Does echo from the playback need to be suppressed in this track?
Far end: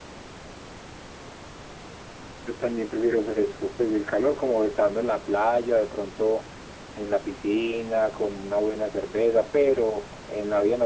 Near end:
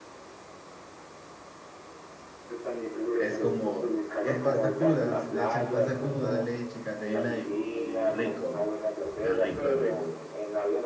Yes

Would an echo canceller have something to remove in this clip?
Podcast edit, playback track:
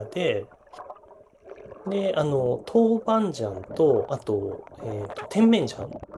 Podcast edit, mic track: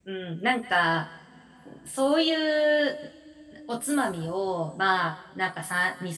No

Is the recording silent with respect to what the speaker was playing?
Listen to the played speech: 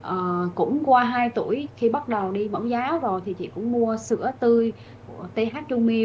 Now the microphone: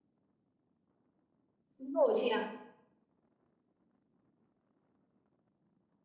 Yes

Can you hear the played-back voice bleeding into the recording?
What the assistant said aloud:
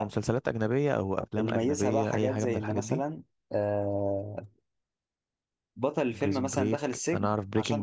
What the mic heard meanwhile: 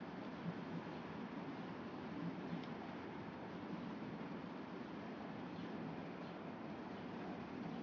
No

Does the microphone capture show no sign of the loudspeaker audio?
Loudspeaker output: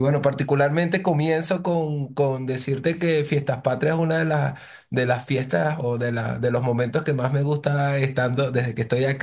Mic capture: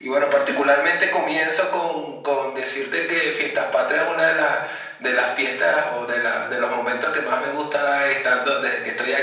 No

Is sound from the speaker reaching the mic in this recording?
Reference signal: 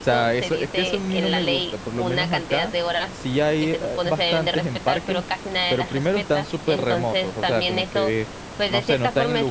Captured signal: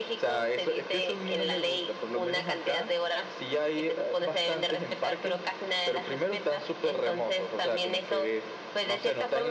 Yes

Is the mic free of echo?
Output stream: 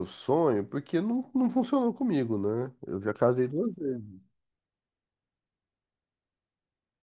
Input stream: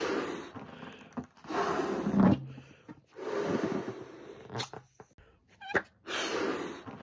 Yes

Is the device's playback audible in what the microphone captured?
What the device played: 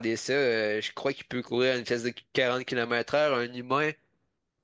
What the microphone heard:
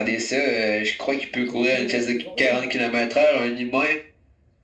Yes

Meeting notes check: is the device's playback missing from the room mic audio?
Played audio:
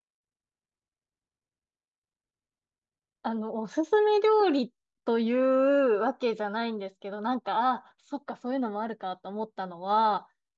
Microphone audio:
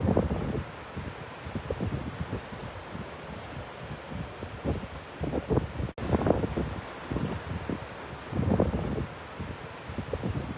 Yes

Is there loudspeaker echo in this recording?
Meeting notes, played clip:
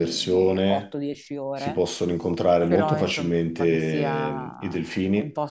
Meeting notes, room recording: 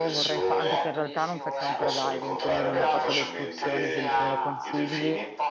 Yes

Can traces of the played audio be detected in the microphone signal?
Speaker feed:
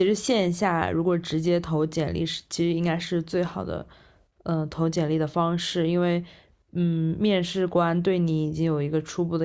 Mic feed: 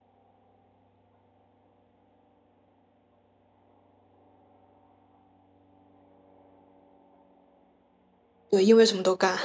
No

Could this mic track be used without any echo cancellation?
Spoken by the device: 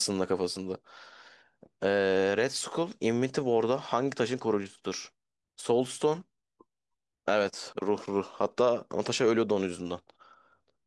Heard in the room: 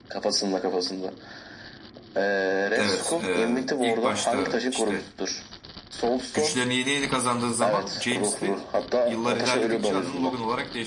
No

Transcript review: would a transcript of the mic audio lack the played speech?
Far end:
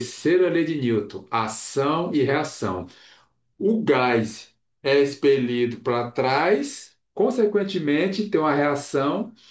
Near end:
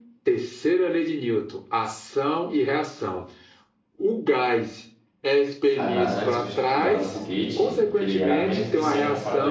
No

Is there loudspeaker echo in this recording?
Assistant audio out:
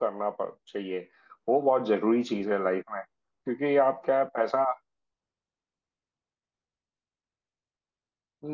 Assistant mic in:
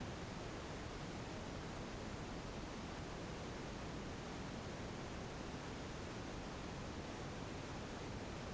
No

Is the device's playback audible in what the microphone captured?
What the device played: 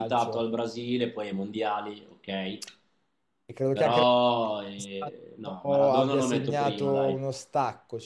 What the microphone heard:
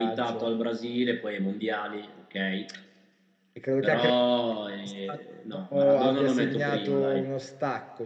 Yes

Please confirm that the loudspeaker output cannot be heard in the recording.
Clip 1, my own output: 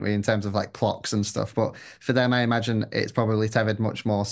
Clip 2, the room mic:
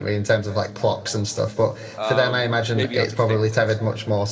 No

